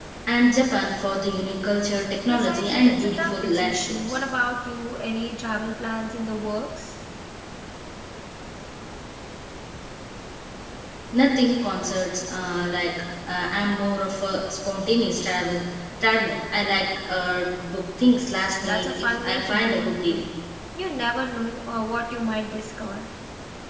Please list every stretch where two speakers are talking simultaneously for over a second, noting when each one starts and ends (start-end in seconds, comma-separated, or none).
2.3-4.2, 18.6-20.2